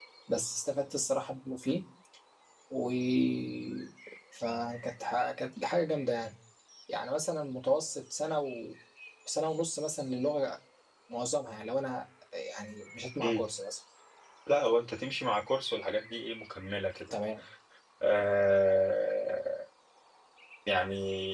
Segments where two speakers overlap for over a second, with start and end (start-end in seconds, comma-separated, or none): none